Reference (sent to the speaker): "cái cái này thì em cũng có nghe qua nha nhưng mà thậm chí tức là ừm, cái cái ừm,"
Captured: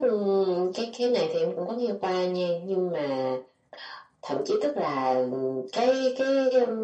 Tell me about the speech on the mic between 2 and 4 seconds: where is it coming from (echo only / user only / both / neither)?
echo only